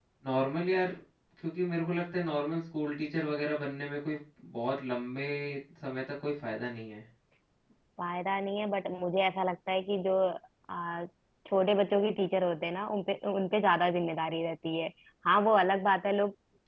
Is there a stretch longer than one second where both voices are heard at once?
No

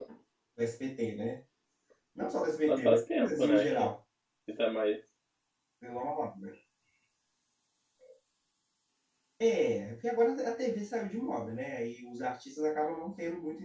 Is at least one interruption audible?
Yes, from 2.6 s

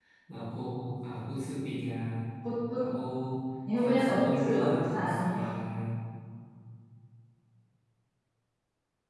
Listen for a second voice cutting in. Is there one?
Yes, from 3.8 s

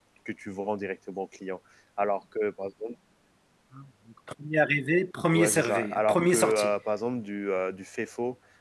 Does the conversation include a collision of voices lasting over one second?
Yes, from 5.3 s

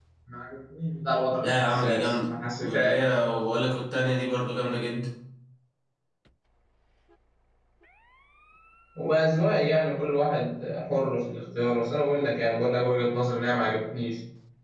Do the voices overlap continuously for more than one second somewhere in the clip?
Yes, from 1.4 s

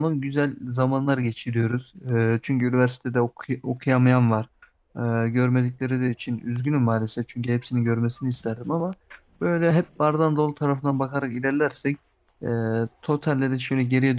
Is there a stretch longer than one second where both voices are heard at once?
No

